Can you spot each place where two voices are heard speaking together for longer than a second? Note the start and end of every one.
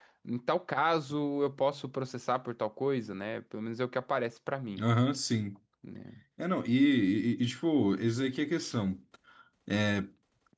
none

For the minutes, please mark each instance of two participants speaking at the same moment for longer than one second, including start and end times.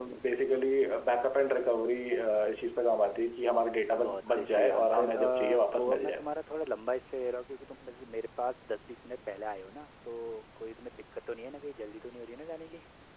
4.0-6.2

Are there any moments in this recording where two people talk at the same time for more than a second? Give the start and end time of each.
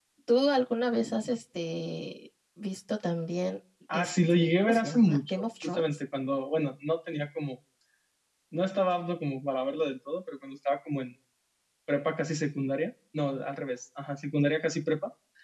3.9-5.8

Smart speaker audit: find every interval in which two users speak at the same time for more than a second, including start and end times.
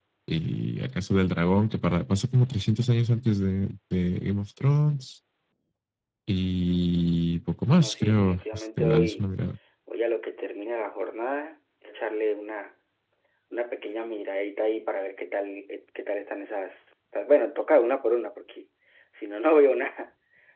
7.8-9.2

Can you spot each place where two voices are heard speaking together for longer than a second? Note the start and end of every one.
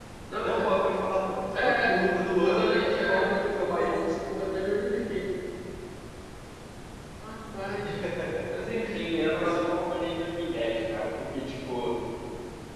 2.4-4.0

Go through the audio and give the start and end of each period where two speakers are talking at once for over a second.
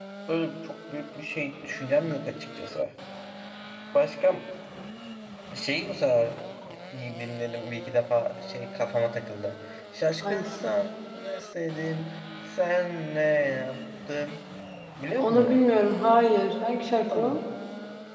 none

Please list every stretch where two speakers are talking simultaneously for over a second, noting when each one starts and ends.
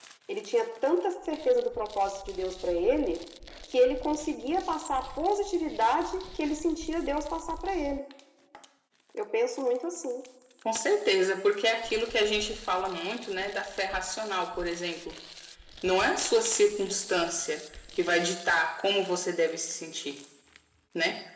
none

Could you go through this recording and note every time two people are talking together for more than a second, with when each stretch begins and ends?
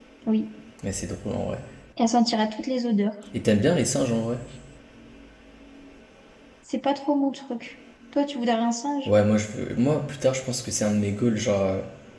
none

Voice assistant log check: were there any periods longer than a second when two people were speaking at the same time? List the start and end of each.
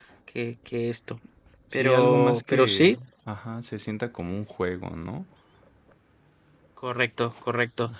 1.7-3.0

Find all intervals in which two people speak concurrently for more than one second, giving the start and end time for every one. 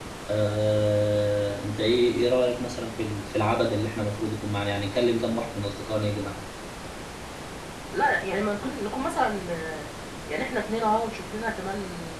none

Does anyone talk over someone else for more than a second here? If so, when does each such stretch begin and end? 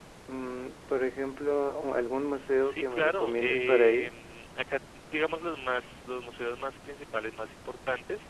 2.6-4.1

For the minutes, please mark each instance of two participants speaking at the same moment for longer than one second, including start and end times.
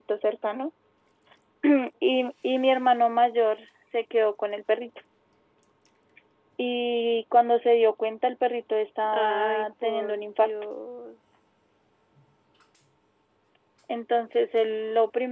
9.1-10.5

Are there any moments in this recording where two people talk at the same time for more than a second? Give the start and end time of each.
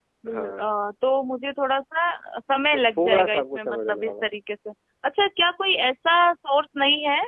3.0-4.2

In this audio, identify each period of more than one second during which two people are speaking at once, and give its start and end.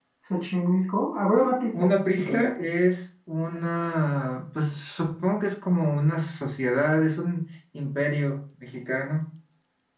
none

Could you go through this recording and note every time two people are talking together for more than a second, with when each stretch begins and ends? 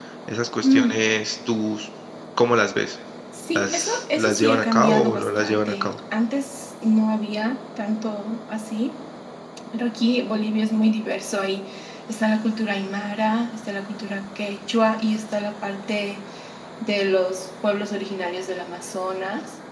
3.5-5.9

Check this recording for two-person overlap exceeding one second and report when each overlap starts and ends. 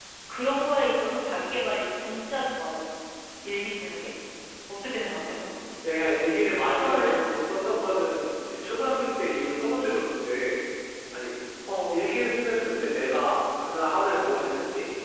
none

